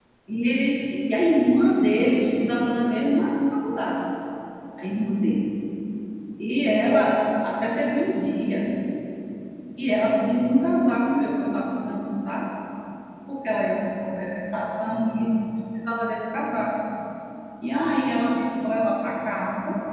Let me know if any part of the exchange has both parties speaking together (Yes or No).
No